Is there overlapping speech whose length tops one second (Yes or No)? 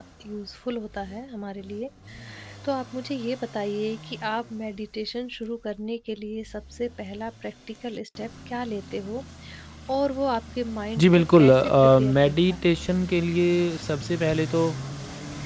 Yes